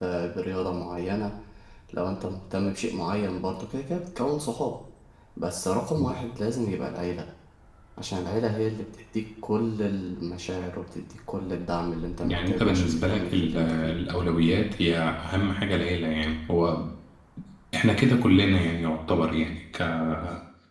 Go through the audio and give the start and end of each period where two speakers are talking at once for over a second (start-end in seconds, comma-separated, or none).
12.2-13.9